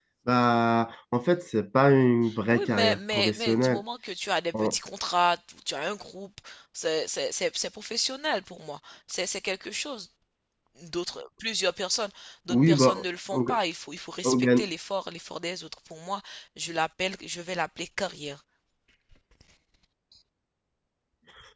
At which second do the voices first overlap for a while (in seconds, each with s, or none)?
2.5 s